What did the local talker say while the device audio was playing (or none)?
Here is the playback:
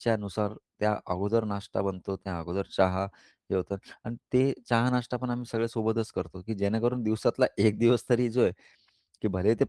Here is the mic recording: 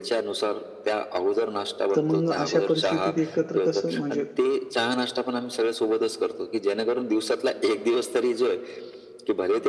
तर मग अशा परिस्थितीत एकत्र कसं म्हणजे